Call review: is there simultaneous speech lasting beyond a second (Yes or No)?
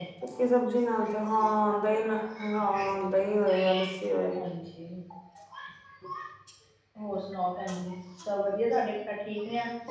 No